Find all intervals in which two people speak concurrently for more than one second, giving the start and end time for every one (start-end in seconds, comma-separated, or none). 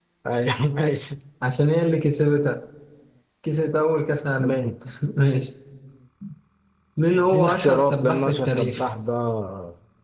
7.1-8.8